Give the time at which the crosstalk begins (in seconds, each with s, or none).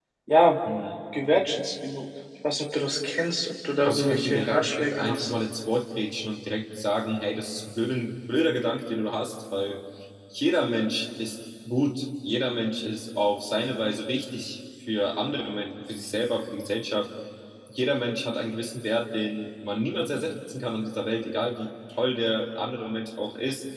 3.8 s